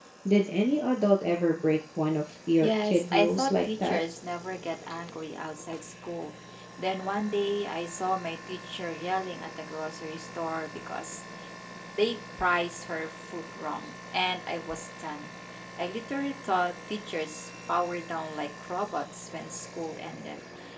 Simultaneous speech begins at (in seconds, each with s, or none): 2.6 s